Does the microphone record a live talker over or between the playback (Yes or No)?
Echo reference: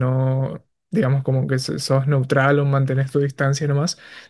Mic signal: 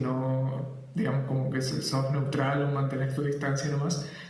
No